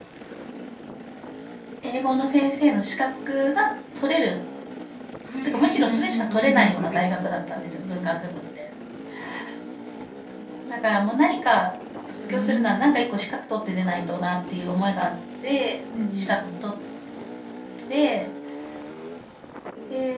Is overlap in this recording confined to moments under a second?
No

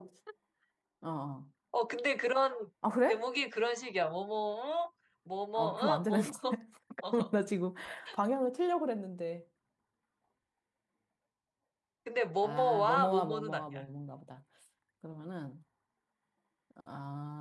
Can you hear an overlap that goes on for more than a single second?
Yes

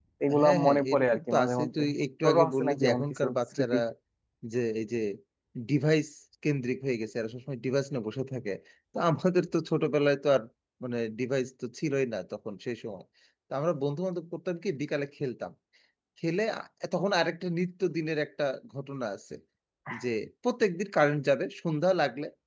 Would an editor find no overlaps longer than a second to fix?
No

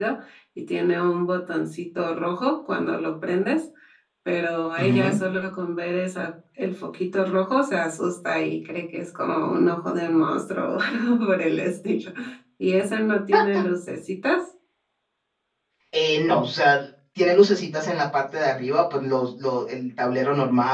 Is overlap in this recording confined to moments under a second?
Yes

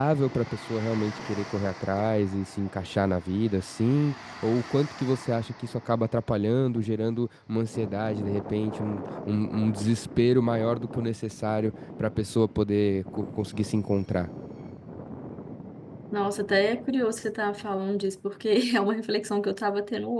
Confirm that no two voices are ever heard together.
Yes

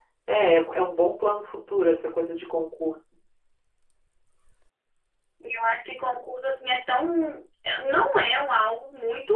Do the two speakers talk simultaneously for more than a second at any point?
No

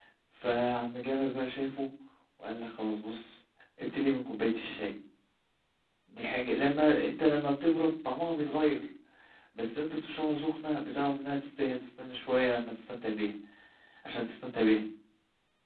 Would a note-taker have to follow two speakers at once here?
No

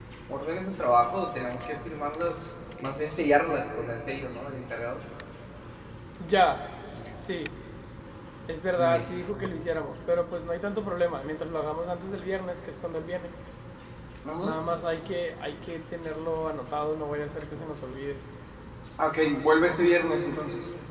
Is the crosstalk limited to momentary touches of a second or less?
Yes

